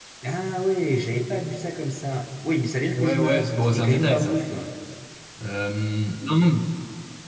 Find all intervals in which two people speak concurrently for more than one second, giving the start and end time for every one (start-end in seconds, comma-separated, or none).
2.9-4.4